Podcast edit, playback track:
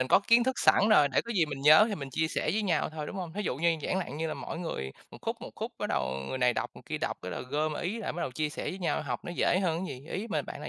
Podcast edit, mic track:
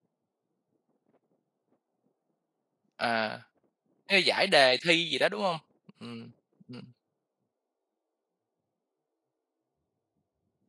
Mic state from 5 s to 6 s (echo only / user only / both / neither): user only